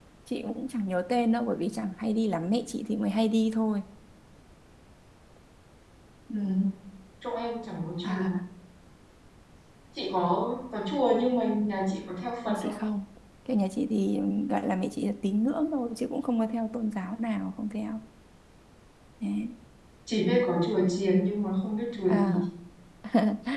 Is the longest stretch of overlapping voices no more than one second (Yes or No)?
Yes